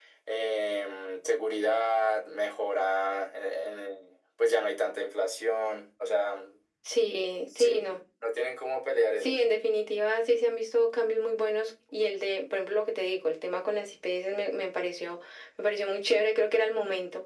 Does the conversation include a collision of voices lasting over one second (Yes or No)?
No